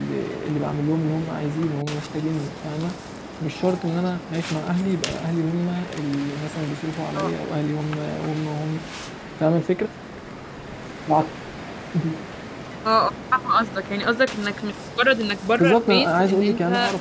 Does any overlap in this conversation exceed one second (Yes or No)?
Yes